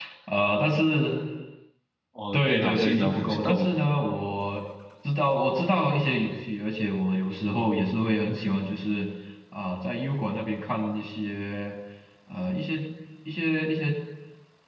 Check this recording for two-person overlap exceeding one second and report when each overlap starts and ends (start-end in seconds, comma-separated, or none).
2.3-3.7